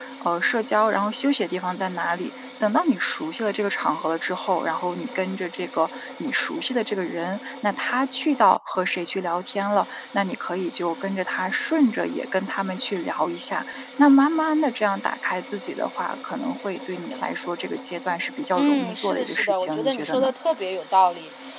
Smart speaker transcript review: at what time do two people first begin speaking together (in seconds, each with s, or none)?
18.5 s